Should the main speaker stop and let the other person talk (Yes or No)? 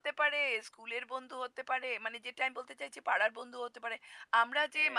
No